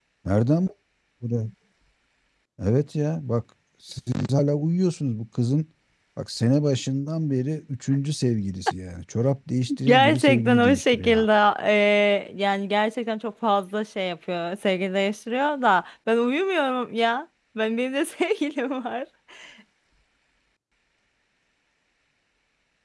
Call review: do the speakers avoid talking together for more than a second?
No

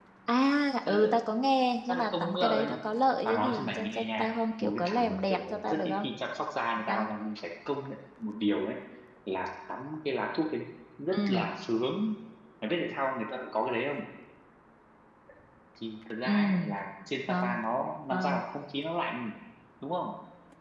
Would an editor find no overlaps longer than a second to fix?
No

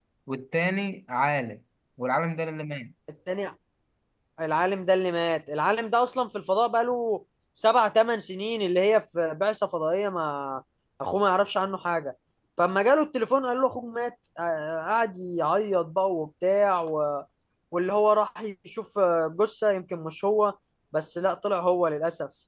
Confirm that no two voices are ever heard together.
Yes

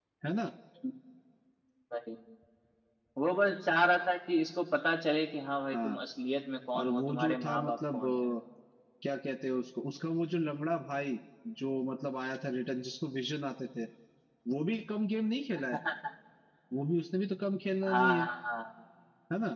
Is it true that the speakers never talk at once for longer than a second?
No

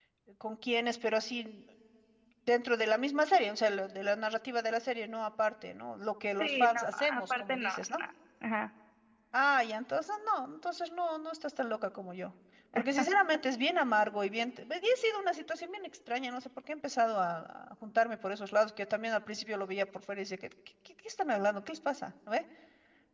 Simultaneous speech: Yes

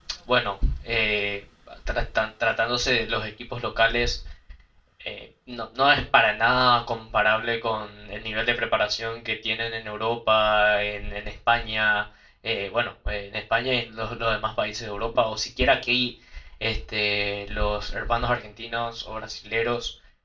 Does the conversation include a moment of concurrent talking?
No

